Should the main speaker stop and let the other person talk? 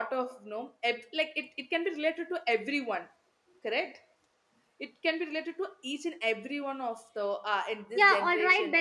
Yes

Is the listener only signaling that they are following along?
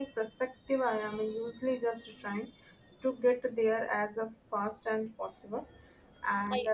Yes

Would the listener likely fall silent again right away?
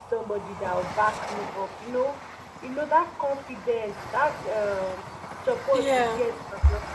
Yes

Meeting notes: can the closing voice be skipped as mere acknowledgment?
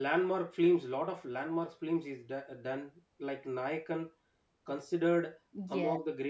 Yes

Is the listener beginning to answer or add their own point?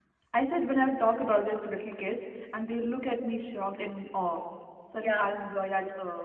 No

